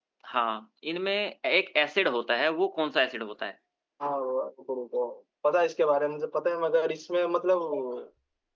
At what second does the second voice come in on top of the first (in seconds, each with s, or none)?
none